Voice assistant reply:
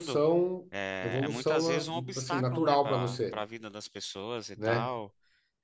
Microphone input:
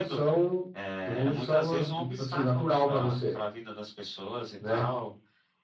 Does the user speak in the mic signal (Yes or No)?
No